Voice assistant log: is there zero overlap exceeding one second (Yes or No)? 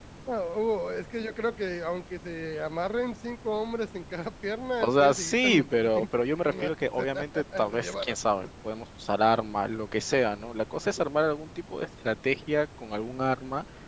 No